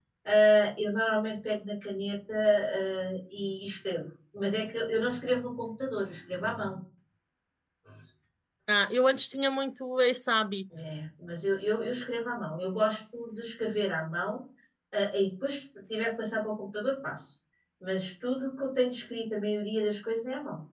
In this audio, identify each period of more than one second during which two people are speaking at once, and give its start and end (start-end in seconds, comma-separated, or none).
none